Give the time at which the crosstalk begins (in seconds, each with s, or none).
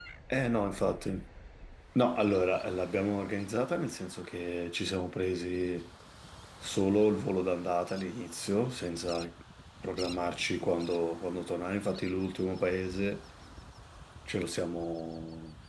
none